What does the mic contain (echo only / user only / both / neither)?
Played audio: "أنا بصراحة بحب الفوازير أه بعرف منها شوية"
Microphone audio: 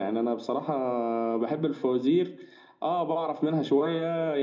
echo only